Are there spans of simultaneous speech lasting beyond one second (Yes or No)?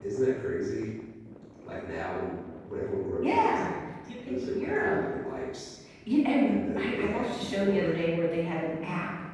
Yes